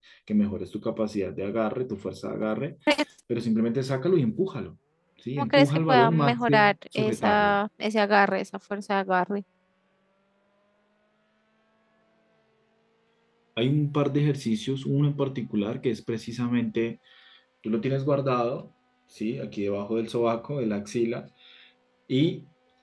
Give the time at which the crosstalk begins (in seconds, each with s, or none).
5.4 s